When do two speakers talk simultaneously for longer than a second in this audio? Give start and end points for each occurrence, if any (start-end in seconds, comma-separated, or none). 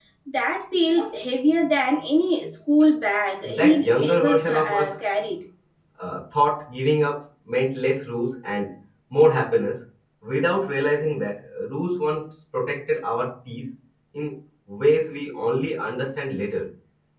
3.4-5.0